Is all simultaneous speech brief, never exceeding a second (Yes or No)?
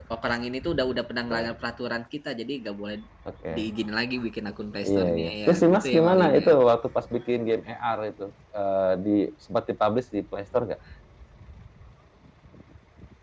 No